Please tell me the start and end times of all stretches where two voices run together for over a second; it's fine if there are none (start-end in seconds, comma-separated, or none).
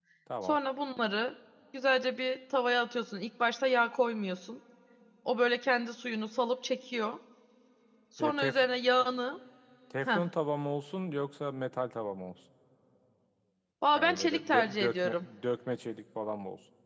13.9-15.3